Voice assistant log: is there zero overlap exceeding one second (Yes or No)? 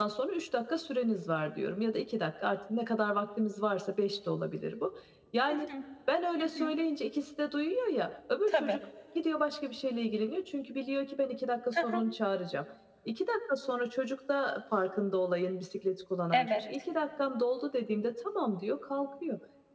Yes